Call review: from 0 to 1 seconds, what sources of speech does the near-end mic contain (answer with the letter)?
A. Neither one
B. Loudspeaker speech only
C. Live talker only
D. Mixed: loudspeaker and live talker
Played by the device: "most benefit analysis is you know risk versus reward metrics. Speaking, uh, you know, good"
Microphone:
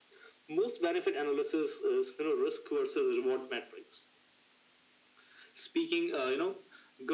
B